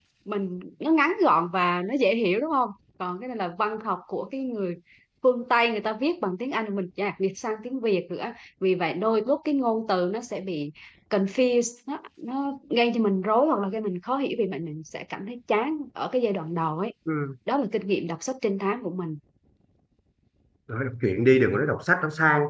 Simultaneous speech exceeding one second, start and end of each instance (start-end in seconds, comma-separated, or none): none